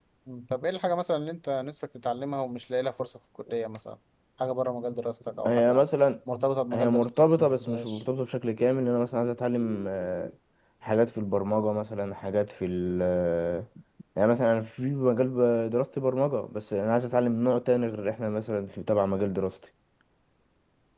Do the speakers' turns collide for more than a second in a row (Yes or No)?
Yes